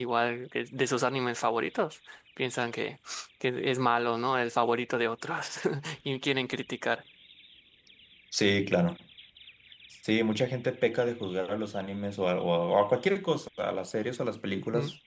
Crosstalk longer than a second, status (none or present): none